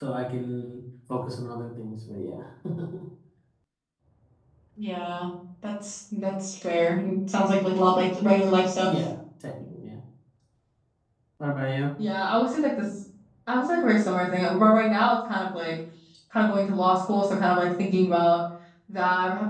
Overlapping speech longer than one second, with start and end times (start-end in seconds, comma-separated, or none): none